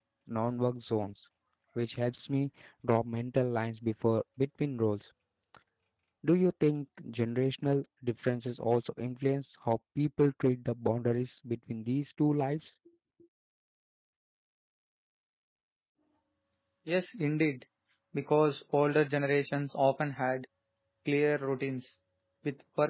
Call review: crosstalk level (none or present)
none